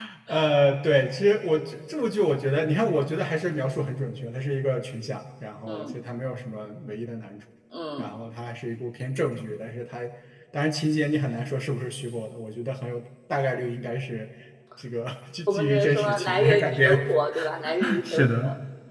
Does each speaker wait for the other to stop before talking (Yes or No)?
No